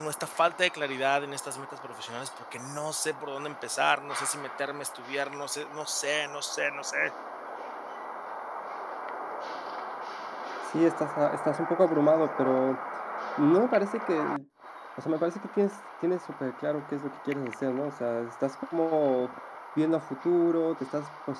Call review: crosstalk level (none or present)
none